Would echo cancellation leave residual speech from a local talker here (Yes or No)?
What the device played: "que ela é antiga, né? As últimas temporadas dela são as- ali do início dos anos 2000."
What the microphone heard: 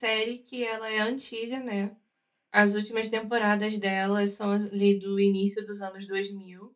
No